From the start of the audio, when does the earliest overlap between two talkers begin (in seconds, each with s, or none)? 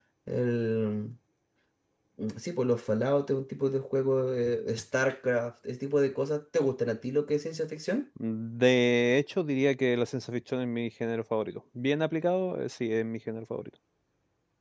none